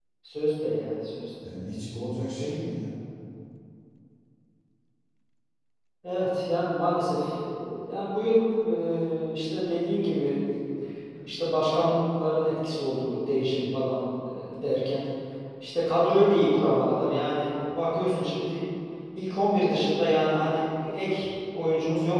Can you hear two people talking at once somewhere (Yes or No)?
No